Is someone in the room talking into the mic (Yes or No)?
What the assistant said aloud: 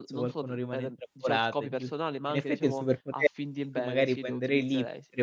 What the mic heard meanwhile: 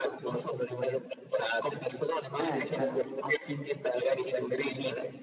Yes